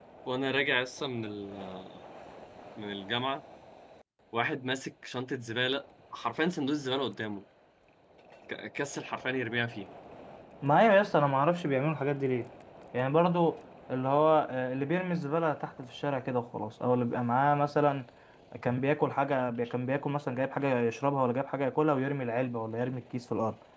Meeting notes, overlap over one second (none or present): none